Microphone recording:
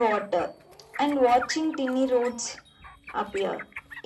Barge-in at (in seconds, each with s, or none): none